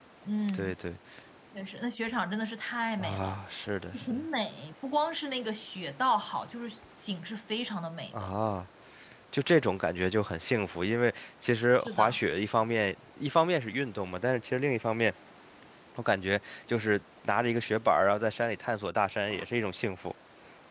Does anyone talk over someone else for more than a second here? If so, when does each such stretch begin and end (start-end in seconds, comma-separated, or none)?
none